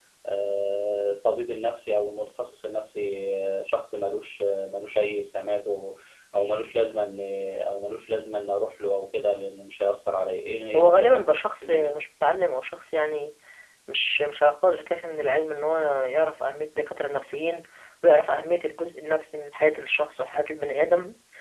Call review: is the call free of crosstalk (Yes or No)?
No